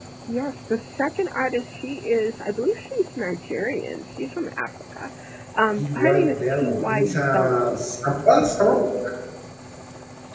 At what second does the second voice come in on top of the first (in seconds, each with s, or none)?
5.8 s